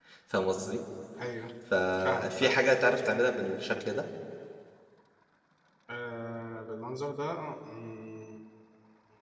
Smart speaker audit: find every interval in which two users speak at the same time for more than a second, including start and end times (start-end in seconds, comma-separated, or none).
none